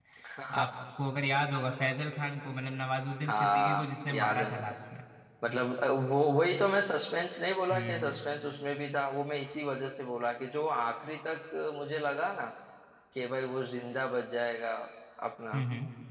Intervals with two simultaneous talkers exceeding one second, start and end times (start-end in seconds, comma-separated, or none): 3.3-4.8